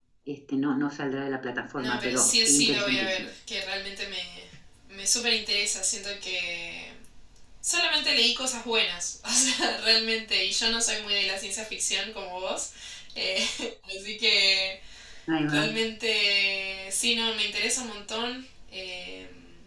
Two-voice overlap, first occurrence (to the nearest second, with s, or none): 2 s